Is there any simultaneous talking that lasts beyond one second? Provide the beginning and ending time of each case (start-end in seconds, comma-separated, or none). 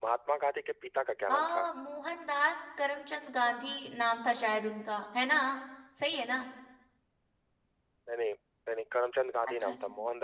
none